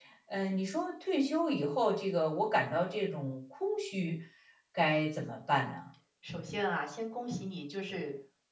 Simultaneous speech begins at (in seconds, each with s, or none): none